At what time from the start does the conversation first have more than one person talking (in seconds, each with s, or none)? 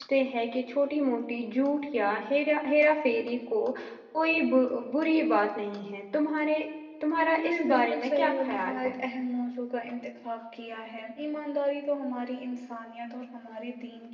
7.4 s